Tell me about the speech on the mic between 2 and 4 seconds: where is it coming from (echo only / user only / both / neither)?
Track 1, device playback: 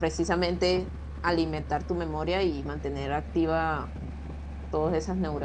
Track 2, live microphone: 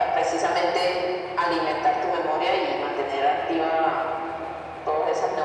echo only